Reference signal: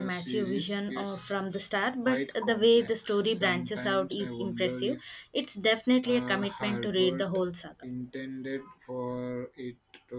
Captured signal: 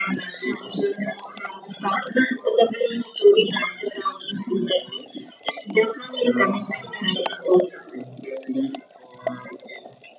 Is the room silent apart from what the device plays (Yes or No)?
Yes